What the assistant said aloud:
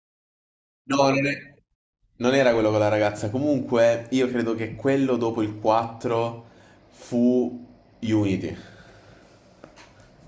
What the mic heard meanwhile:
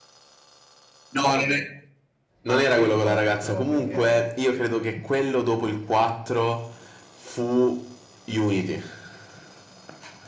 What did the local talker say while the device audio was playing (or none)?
ma io ricordo proprio che